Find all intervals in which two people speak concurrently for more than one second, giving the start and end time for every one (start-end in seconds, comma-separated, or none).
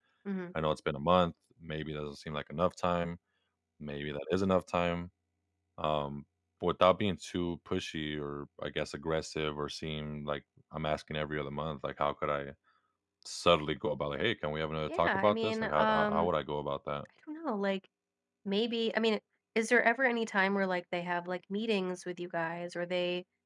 14.9-16.3